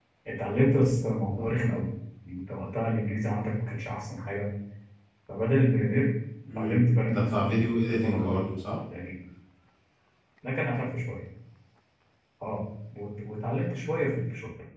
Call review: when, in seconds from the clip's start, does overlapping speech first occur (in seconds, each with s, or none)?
6.5 s